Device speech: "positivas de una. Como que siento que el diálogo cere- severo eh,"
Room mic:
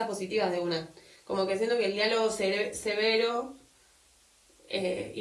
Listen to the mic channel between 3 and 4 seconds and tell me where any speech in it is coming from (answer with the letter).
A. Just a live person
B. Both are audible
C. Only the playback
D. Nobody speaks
C